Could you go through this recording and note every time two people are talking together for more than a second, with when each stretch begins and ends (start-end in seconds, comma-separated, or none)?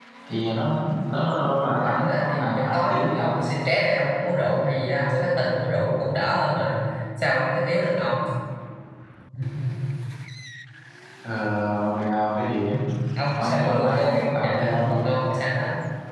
1.4-3.4, 13.4-15.1